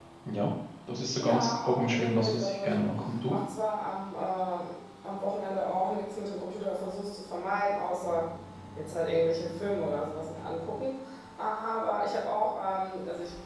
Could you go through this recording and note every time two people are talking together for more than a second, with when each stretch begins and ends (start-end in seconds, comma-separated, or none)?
1.2-2.8